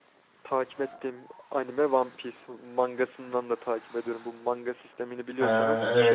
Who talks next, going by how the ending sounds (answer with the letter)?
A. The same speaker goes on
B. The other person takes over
B